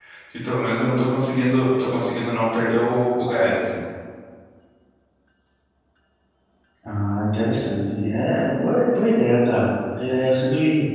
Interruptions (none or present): none